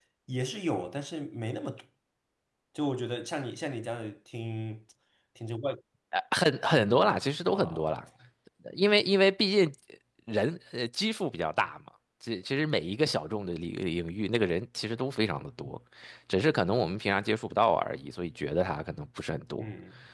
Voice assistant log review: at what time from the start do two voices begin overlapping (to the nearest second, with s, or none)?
7 s